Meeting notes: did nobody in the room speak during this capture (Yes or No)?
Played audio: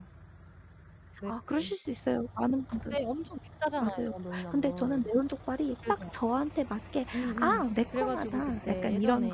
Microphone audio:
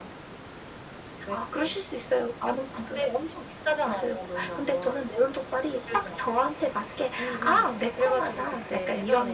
Yes